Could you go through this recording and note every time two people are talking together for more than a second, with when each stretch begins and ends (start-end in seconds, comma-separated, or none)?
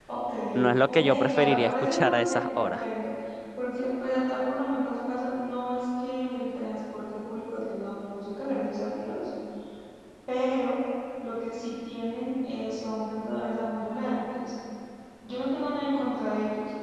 0.9-2.8